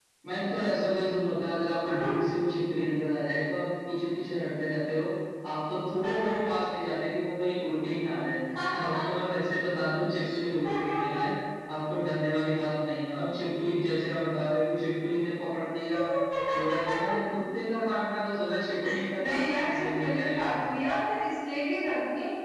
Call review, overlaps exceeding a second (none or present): present